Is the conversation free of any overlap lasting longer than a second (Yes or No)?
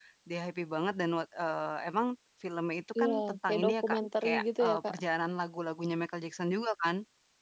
No